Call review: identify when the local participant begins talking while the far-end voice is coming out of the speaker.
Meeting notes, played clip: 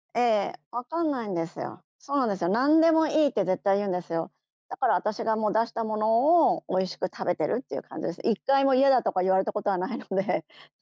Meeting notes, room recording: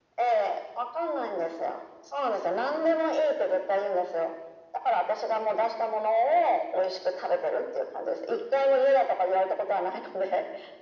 none

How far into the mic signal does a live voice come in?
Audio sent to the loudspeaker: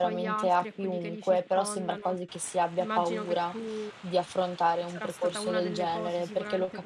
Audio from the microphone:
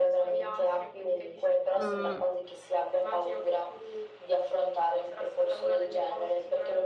1.8 s

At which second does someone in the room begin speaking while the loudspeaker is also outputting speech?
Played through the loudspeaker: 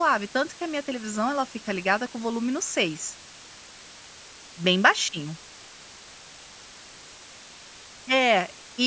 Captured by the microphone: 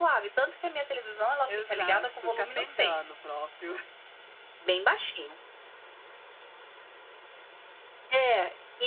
1.5 s

